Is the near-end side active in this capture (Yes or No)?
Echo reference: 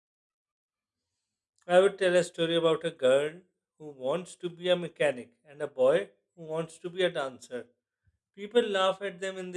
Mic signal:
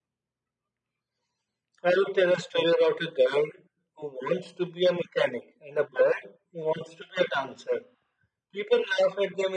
No